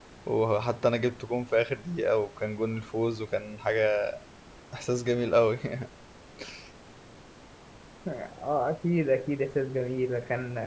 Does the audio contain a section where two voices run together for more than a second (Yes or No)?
No